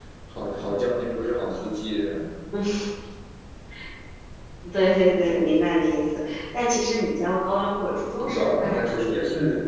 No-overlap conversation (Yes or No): No